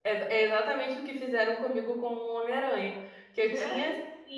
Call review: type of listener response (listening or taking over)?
listening